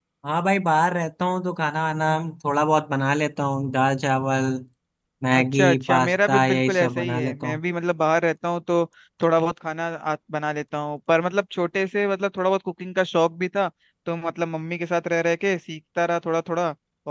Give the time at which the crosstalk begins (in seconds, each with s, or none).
5.3 s